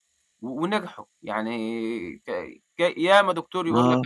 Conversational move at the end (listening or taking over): listening